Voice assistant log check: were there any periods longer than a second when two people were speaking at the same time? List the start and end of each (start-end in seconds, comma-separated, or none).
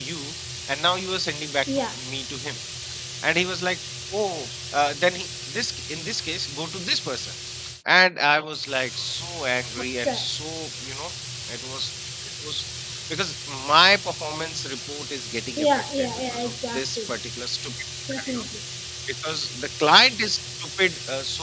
15.6-17.1